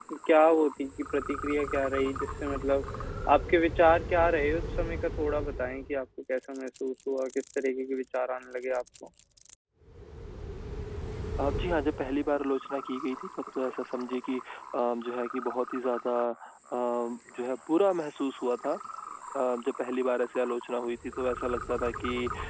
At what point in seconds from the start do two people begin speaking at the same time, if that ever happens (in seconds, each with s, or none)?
none